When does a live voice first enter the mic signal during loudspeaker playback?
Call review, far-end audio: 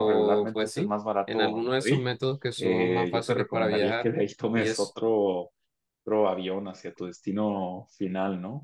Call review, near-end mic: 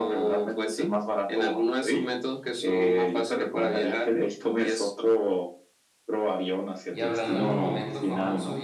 7 s

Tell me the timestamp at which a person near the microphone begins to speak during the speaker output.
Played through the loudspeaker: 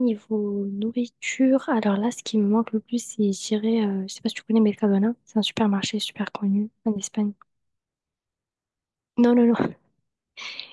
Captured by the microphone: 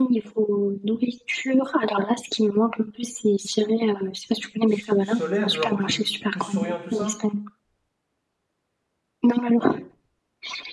5 s

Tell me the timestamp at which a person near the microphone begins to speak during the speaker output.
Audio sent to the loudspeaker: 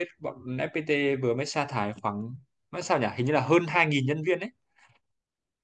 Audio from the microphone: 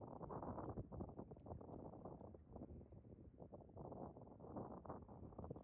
none

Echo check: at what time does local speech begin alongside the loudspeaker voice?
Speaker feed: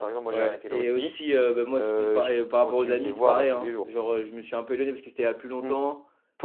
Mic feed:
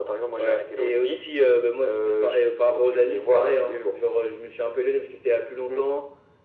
none

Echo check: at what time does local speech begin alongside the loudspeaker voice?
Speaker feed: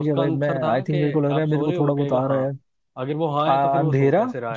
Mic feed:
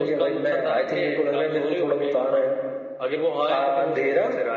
none

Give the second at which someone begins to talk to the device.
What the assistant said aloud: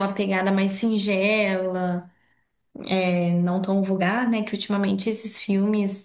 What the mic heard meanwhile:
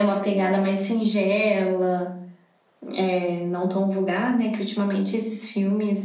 none

